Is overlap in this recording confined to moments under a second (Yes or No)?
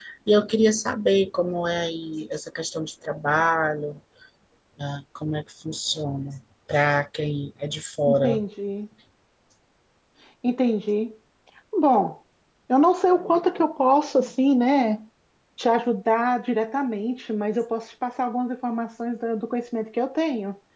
Yes